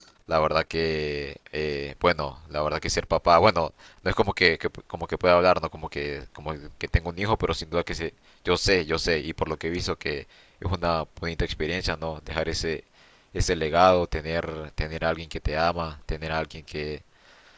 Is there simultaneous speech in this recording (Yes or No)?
No